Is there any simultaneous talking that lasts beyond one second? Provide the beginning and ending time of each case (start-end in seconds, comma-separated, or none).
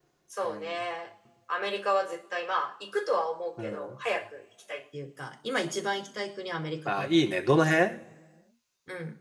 none